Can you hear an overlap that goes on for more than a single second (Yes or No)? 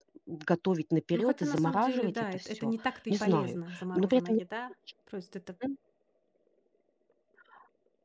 Yes